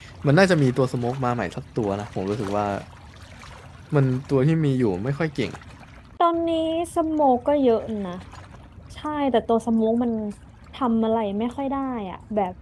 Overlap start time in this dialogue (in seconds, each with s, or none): none